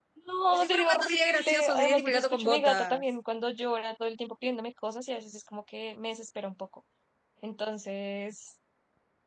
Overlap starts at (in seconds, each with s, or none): 0.5 s